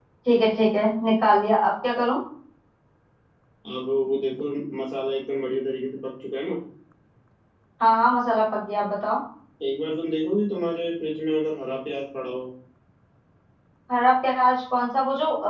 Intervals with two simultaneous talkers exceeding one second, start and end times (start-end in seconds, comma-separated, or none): none